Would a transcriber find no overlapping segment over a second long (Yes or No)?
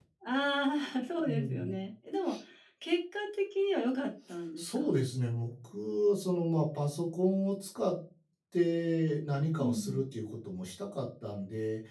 Yes